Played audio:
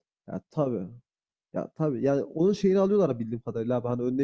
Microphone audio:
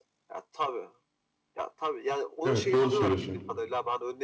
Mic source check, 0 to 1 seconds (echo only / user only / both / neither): echo only